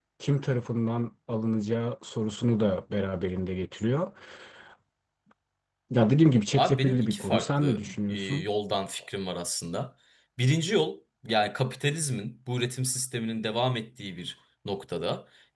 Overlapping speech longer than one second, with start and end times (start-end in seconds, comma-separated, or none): 6.6-8.4